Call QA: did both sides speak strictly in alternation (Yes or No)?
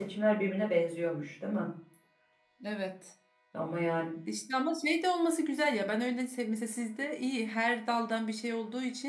Yes